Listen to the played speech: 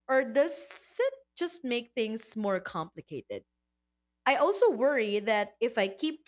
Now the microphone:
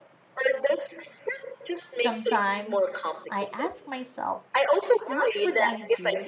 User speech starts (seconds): 1.9 s

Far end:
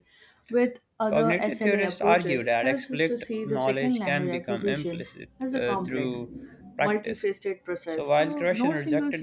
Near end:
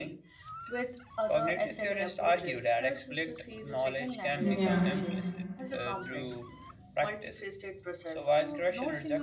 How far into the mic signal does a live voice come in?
4.4 s

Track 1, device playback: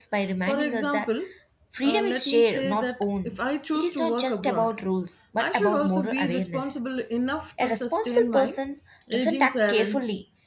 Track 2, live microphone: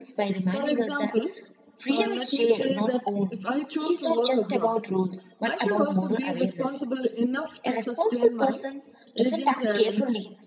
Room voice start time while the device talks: none

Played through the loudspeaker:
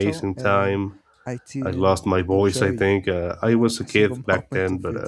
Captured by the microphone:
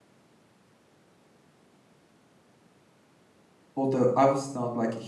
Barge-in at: 3.7 s

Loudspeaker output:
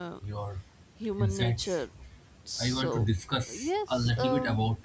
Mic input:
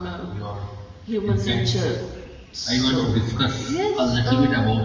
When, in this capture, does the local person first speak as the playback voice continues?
none

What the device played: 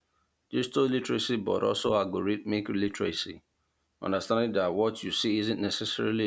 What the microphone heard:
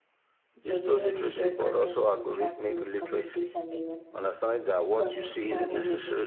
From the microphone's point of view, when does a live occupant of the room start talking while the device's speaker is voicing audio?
0.6 s

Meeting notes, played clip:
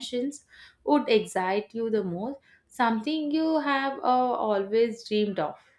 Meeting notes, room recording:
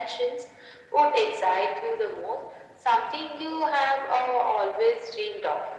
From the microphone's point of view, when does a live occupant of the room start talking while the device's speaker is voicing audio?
none

